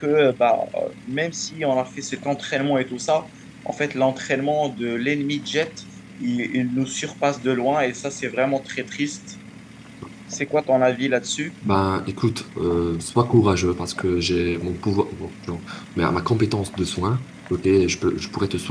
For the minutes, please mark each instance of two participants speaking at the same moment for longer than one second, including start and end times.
none

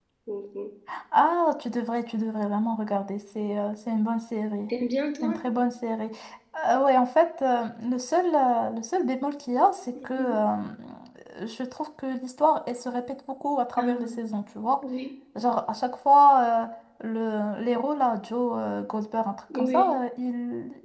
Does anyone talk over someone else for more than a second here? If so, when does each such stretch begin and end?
none

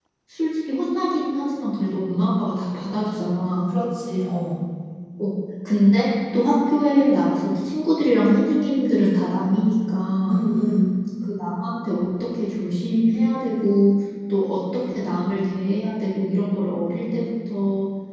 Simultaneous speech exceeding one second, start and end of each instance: none

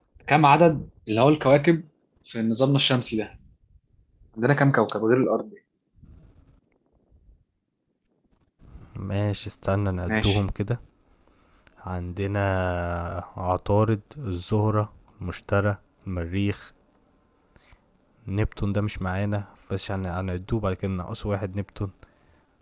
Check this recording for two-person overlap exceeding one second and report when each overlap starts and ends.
none

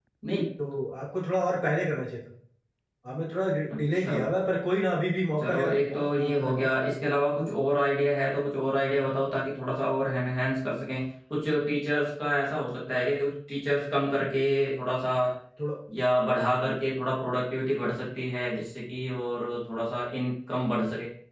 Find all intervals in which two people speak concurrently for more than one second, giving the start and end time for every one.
5.4-6.7

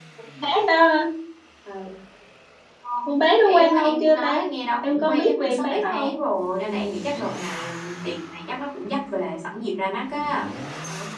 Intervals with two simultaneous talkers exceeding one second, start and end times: 3.1-4.4, 4.9-6.1

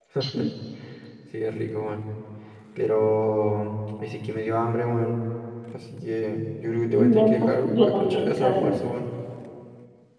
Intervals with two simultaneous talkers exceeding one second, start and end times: 7.0-8.8

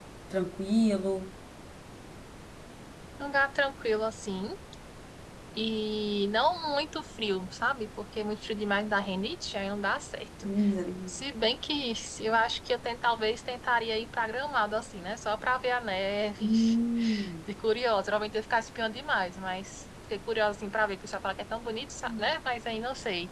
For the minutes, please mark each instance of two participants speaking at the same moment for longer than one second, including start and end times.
none

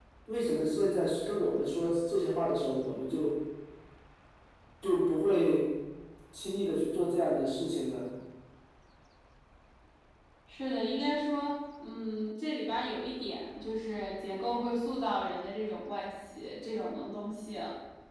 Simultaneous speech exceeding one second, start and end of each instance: none

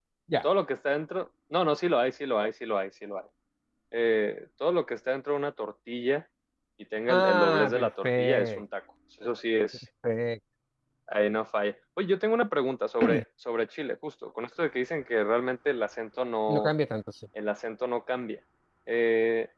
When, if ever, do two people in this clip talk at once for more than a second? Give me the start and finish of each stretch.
7.1-8.6

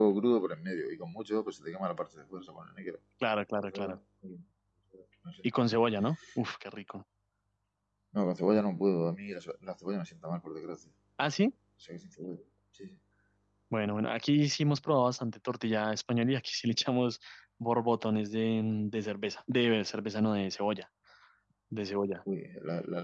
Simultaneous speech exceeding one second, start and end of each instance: none

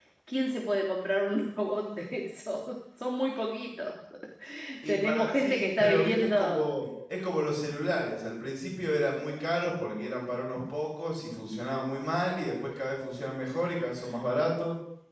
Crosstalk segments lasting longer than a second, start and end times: 4.9-6.8

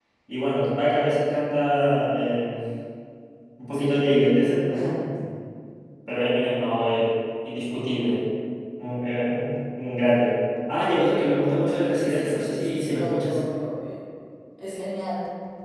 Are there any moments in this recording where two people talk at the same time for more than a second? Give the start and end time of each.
12.1-13.4

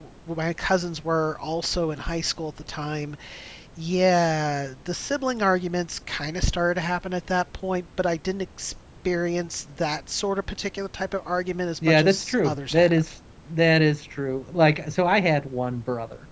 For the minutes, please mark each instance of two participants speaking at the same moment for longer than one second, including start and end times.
11.8-13.1

